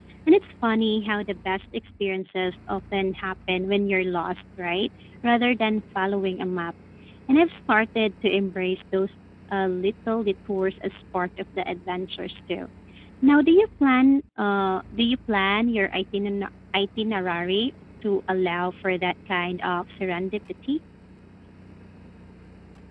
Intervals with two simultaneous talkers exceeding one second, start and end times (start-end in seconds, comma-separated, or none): none